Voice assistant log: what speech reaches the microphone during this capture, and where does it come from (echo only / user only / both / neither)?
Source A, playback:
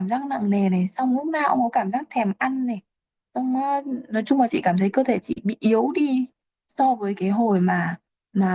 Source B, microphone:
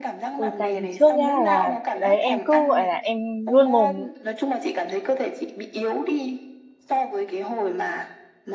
both